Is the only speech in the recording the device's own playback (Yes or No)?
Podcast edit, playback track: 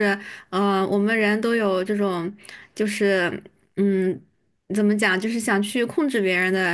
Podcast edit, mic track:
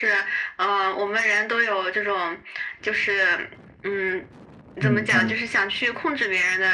No